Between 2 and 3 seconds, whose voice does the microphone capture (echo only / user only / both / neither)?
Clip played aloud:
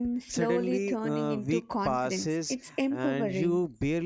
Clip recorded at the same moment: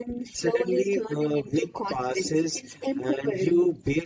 echo only